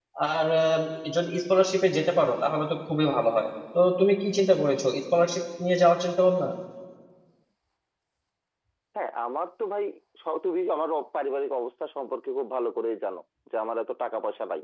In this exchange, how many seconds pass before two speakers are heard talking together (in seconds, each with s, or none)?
none